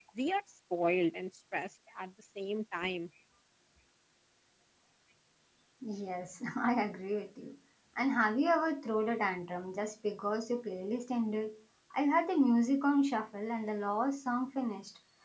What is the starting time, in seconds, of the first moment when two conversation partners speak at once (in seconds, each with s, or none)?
none